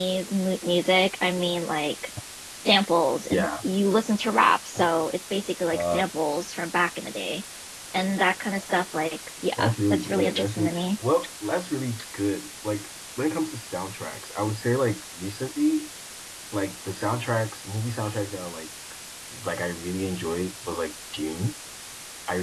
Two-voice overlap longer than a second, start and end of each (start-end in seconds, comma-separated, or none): 9.6-10.8